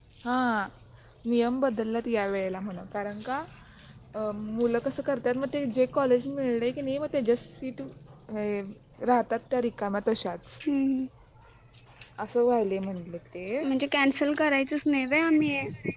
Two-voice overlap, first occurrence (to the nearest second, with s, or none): none